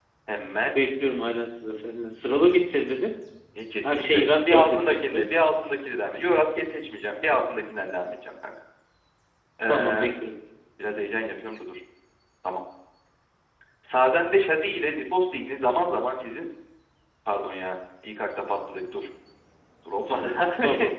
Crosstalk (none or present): present